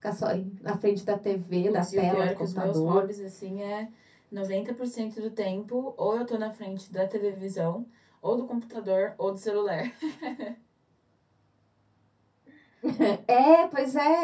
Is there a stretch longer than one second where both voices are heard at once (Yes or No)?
Yes